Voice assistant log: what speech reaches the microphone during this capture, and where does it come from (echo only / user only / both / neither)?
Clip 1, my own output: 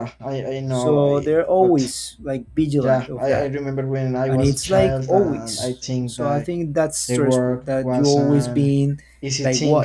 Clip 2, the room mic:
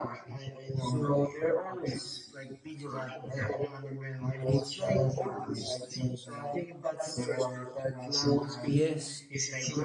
both